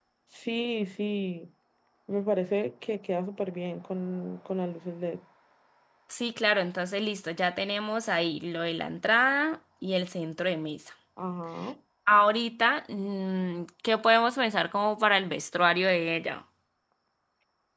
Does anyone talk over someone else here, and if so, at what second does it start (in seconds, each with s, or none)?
none